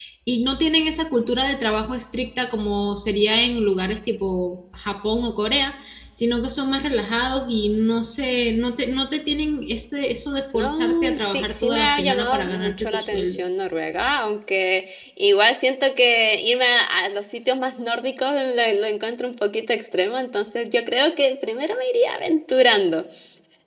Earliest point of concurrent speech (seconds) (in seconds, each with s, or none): 10.5 s